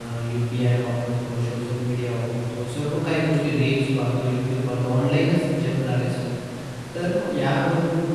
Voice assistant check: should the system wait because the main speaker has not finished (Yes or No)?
Yes